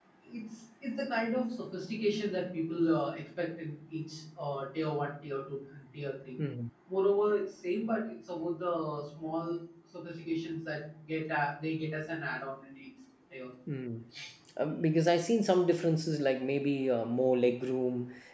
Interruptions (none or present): none